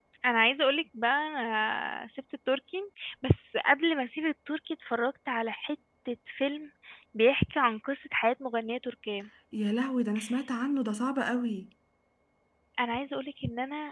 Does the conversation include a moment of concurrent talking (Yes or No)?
No